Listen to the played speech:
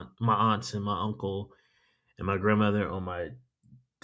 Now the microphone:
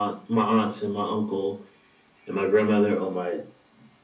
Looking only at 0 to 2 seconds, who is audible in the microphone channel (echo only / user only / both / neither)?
echo only